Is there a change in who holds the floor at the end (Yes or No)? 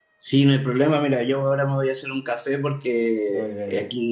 No